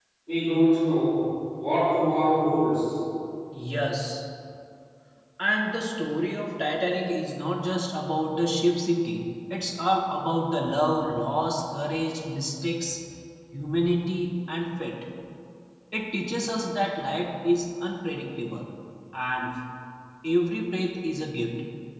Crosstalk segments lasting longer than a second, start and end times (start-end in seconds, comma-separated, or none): none